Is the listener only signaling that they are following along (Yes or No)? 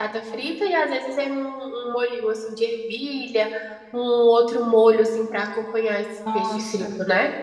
No